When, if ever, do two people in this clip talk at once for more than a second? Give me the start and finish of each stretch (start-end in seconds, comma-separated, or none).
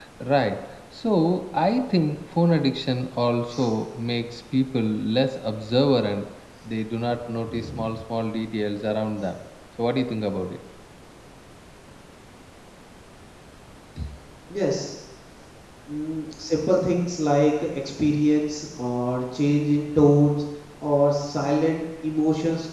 none